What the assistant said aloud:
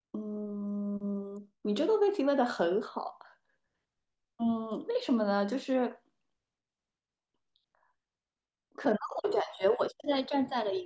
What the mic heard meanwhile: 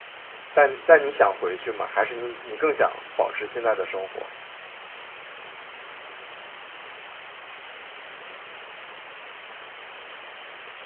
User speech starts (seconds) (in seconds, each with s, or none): 0.5 s